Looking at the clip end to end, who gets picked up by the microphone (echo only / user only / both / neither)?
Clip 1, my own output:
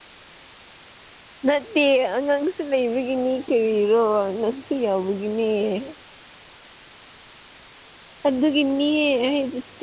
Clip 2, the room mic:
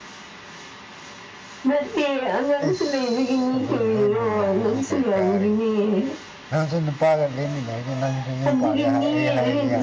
both